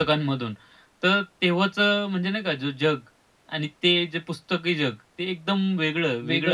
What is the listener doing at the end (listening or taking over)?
taking over